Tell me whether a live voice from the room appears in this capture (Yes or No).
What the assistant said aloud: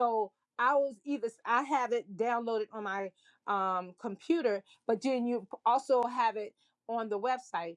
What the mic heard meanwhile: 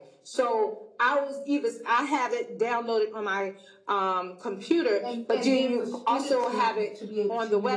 Yes